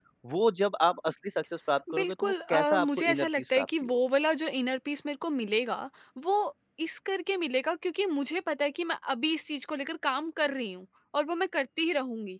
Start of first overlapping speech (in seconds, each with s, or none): 1.9 s